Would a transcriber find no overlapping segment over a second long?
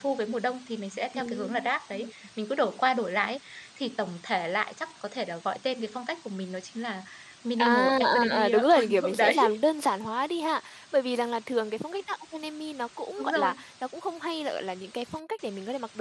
No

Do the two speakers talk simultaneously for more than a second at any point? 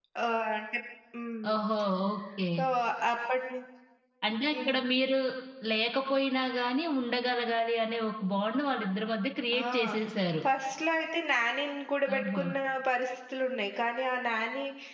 No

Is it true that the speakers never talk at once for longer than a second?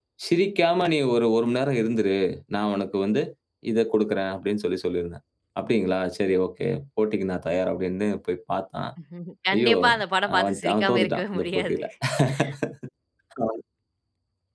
No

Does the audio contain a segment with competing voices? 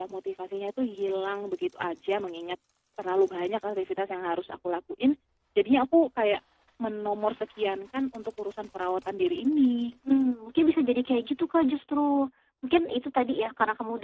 No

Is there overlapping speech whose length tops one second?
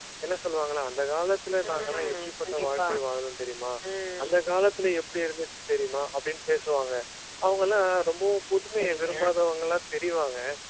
Yes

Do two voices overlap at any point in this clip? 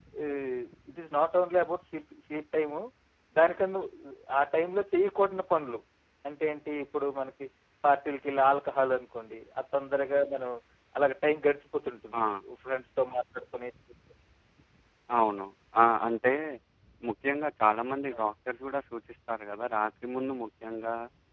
No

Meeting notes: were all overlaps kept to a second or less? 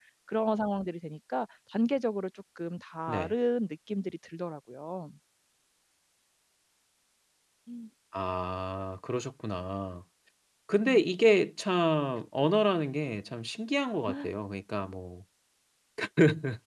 Yes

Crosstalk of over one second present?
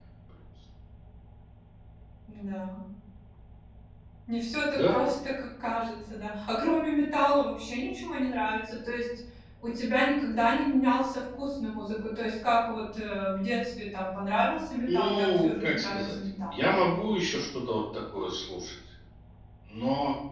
Yes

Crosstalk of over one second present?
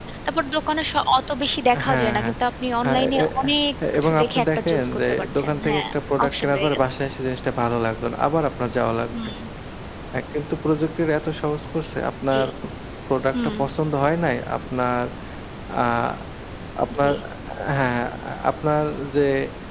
Yes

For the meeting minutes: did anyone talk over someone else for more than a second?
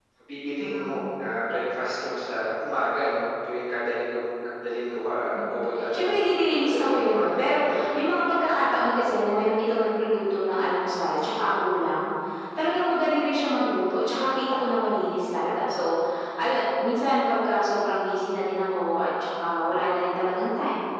Yes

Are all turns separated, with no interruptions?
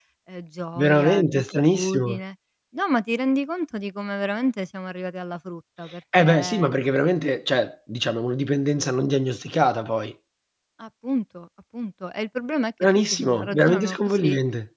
No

